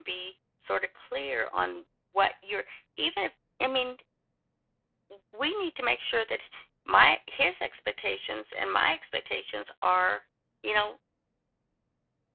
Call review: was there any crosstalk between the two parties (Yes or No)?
No